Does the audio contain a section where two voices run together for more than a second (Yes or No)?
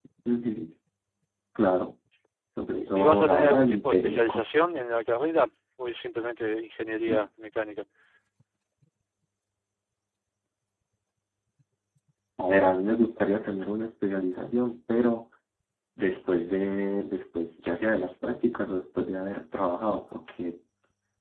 Yes